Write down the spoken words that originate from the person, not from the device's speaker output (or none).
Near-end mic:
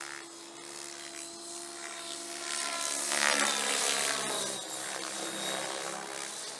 none